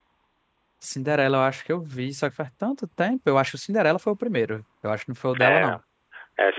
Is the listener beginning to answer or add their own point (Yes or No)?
Yes